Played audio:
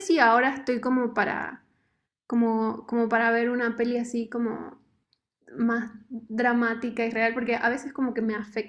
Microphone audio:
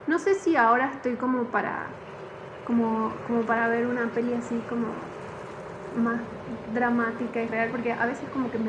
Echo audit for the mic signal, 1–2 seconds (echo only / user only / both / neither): echo only